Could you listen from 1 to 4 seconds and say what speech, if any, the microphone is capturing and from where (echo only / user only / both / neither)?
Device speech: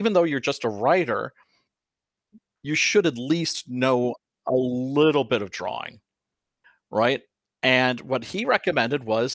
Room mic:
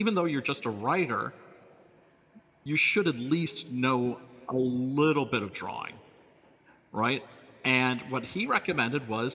echo only